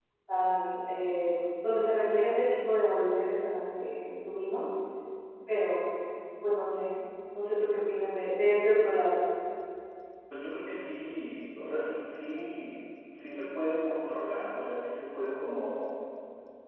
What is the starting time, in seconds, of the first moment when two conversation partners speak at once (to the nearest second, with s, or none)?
none